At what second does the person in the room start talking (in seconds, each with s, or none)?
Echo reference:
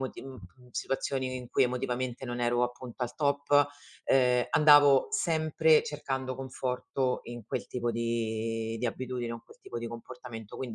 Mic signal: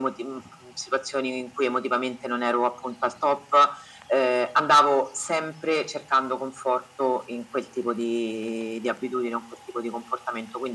none